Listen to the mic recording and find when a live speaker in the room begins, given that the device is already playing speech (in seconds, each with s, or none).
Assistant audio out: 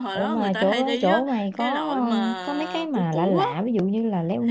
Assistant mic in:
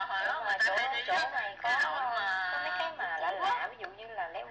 none